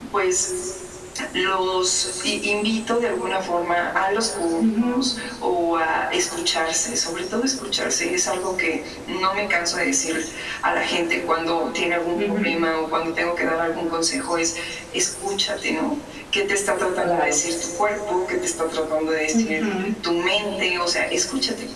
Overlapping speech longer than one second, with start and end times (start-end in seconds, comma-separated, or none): none